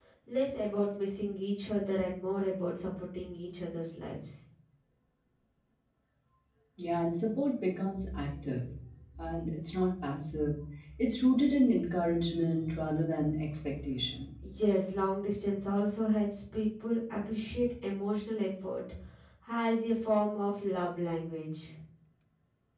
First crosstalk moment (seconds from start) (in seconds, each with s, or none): none